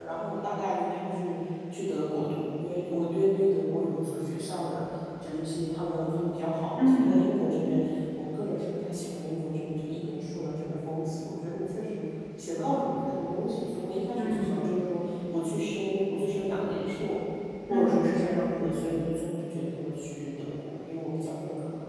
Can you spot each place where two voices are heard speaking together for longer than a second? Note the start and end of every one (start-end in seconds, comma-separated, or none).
none